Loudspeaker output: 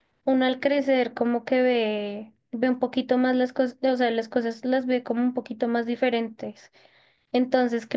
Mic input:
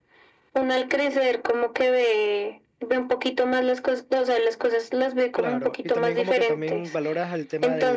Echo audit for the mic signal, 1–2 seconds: echo only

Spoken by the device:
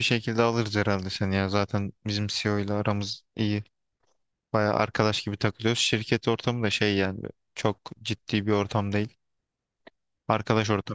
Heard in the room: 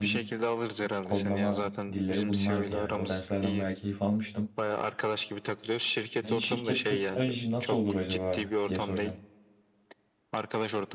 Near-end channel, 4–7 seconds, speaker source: both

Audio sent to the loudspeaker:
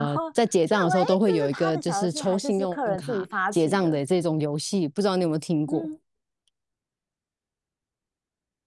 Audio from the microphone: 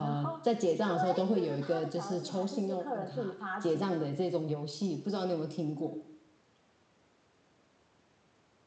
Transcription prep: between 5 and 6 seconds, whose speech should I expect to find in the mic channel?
echo only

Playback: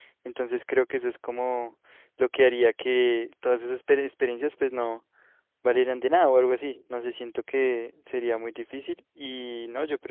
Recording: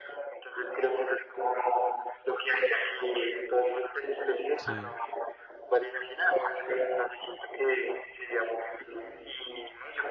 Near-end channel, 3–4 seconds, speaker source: echo only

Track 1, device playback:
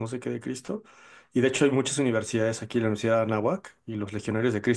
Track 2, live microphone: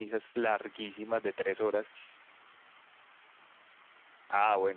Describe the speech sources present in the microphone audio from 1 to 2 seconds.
user only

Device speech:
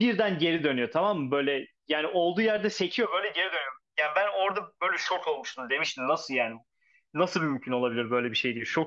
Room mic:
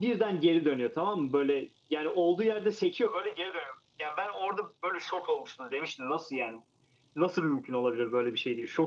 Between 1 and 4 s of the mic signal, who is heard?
echo only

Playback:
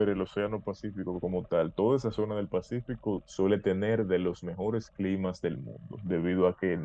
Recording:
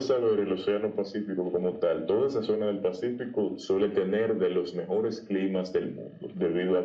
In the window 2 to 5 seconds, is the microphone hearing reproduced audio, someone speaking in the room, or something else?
echo only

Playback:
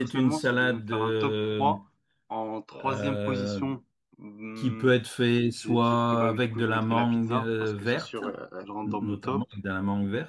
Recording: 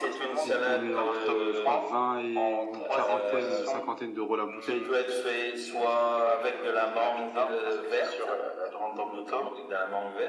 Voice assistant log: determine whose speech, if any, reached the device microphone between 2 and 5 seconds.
both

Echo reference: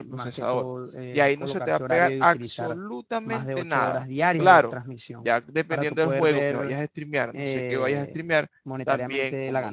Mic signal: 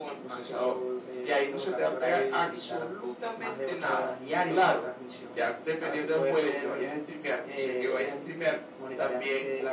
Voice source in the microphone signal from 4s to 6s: echo only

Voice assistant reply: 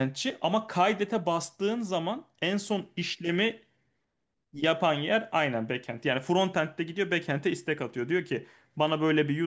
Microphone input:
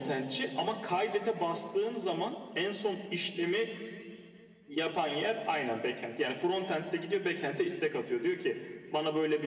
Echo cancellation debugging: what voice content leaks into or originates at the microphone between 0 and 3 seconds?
echo only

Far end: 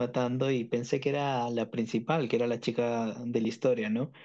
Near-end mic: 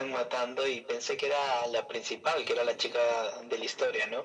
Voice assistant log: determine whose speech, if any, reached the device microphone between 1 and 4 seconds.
echo only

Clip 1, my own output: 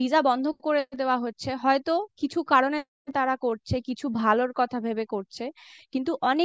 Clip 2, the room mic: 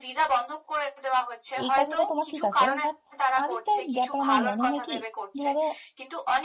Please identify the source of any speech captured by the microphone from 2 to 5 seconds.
both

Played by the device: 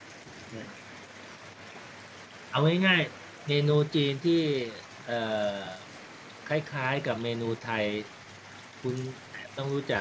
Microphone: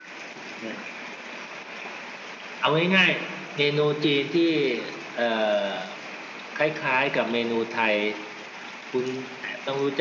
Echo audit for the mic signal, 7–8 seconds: echo only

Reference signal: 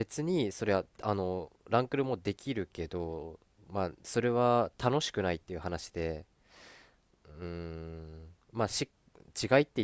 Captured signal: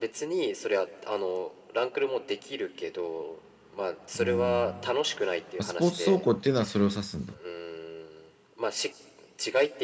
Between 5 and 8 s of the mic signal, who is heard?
both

